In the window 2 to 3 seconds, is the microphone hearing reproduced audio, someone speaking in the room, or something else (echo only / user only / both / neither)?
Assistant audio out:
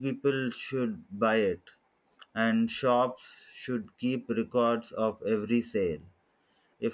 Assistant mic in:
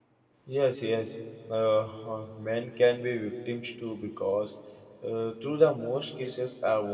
user only